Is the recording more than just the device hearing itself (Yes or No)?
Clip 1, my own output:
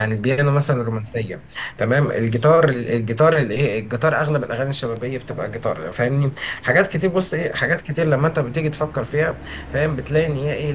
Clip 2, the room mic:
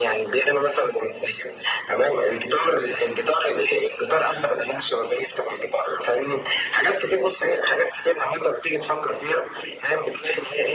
No